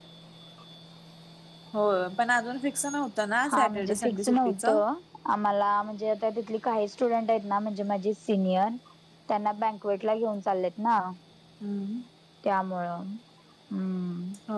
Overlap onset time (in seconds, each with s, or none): 3.4 s